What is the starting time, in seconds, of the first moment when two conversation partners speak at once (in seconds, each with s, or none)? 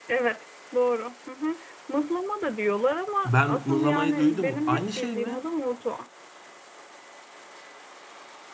3.2 s